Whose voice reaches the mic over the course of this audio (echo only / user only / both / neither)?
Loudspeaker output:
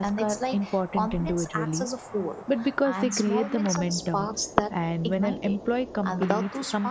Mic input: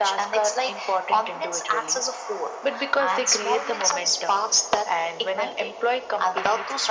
echo only